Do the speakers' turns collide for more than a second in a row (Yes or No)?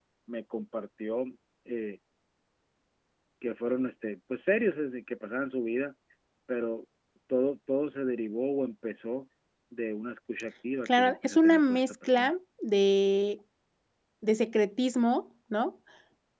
Yes